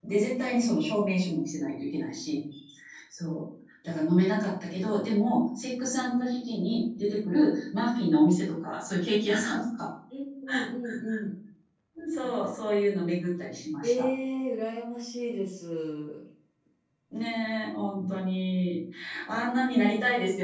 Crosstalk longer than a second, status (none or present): none